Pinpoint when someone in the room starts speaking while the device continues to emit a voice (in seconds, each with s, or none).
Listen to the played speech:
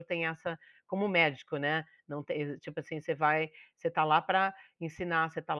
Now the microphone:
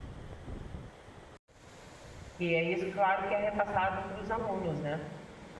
2.4 s